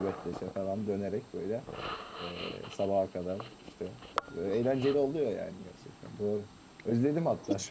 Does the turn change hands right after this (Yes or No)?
No